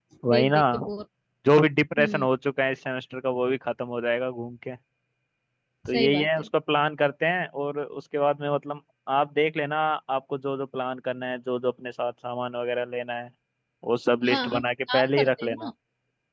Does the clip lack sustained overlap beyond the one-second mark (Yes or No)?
No